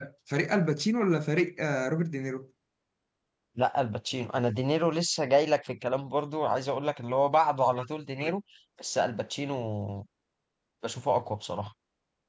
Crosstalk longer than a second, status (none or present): none